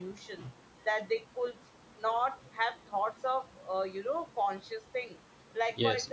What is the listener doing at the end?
listening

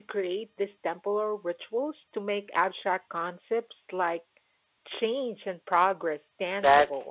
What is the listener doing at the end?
taking over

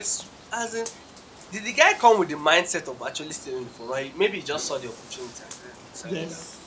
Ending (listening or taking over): taking over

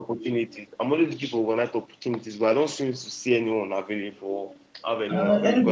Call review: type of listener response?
taking over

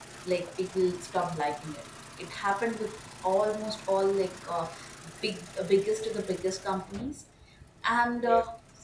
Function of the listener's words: listening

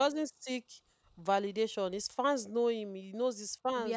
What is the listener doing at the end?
listening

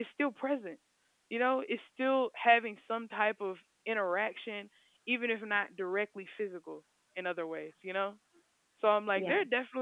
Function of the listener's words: listening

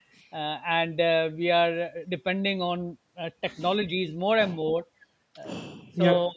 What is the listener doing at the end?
listening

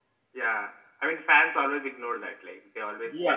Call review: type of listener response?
taking over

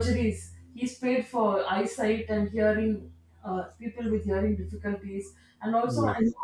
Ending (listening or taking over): listening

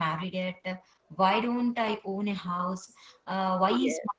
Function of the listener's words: listening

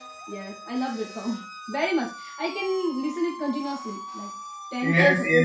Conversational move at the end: taking over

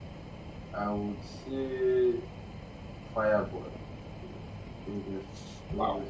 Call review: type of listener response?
taking over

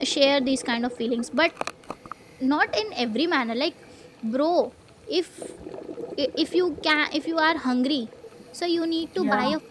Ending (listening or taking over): listening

